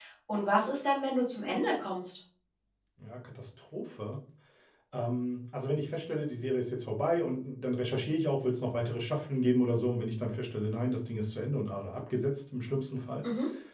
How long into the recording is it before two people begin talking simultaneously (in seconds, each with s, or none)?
none